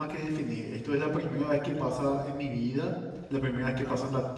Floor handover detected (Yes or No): No